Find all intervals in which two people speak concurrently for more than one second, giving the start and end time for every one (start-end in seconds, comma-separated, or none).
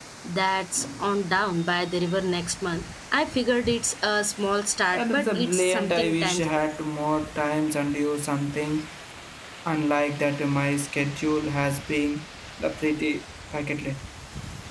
4.9-6.7